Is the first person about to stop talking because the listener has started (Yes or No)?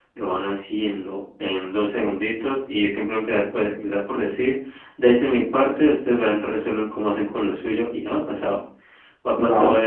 No